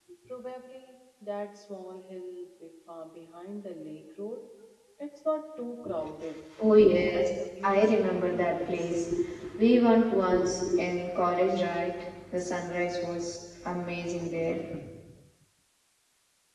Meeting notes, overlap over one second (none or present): present